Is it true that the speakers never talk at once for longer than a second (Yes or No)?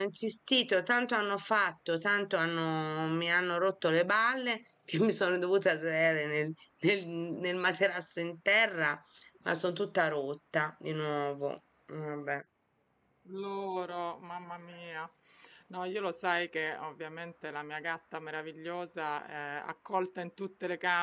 Yes